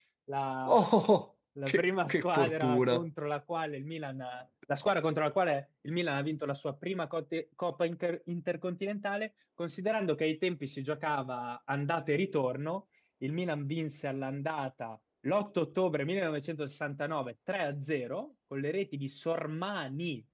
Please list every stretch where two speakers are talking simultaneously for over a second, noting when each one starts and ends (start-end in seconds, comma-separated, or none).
1.7-3.0